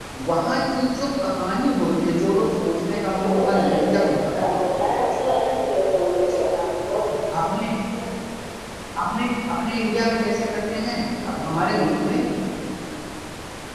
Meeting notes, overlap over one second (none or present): present